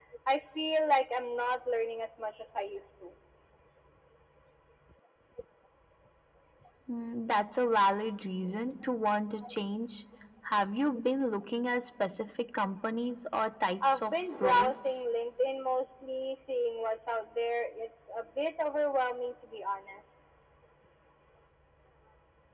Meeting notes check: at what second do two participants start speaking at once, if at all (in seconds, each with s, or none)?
13.8 s